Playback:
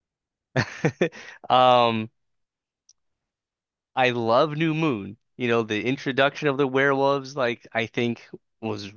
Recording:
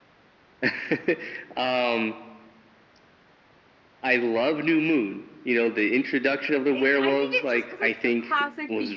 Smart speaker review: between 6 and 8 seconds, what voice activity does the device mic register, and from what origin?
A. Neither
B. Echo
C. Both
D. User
C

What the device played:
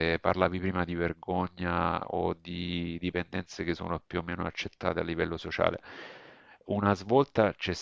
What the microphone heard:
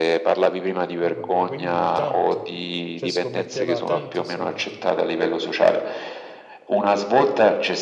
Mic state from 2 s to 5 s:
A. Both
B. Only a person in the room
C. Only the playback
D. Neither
A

